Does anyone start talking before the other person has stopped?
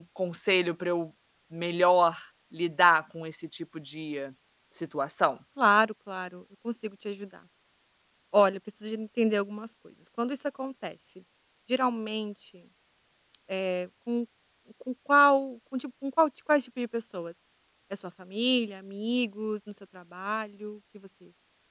No

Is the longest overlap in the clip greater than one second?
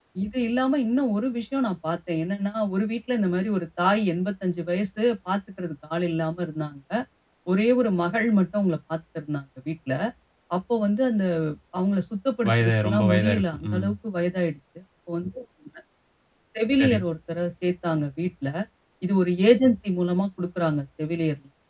Yes, from 12.5 s

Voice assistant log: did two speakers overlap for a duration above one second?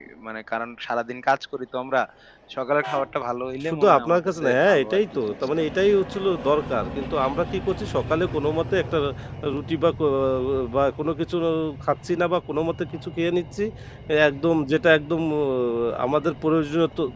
Yes, from 3.7 s

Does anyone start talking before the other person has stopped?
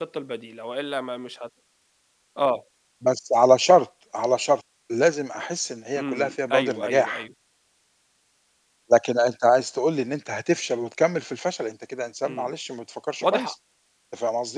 Yes, from 6.0 s

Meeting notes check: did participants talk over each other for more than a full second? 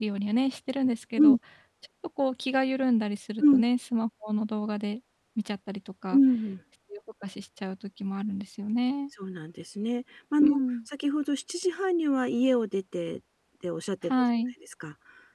No

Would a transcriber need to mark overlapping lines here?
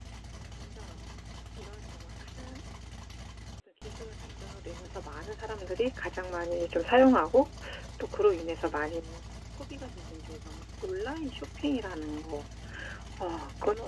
No

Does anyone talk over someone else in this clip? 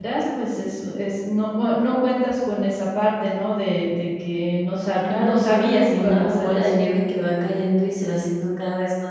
Yes, from 5.0 s

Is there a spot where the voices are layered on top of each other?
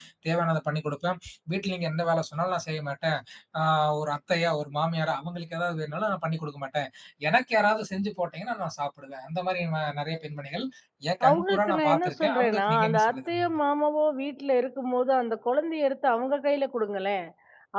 Yes, from 11.3 s

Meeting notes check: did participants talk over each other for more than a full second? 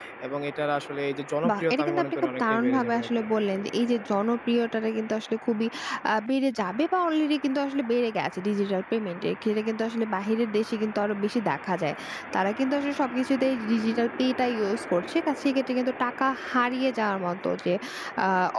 Yes, from 1.4 s

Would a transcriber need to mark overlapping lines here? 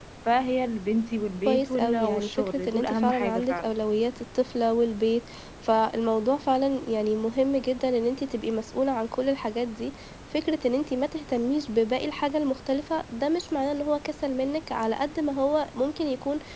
Yes, from 1.4 s

